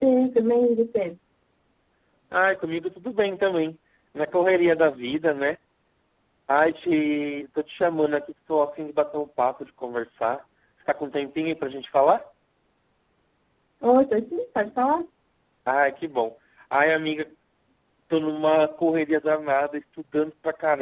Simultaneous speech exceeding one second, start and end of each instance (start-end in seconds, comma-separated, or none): none